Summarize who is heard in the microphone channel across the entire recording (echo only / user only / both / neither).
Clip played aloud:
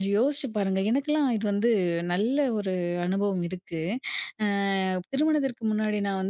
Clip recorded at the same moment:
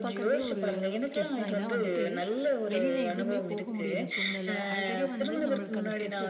both